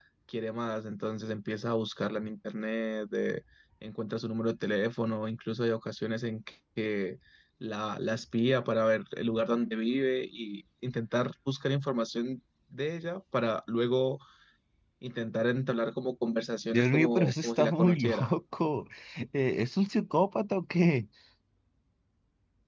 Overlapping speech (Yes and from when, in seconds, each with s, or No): Yes, from 16.7 s